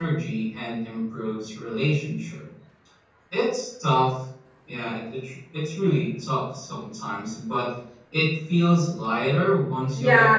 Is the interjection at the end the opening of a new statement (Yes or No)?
Yes